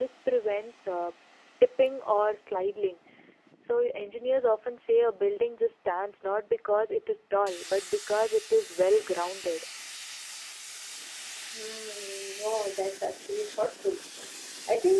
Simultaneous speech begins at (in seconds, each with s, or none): none